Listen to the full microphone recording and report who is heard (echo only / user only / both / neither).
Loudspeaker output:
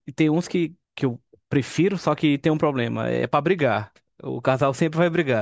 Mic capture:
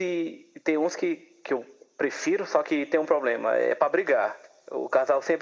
echo only